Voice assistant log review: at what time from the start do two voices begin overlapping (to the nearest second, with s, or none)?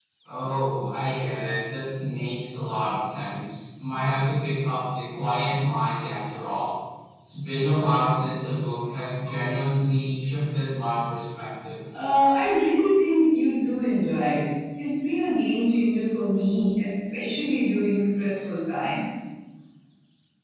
none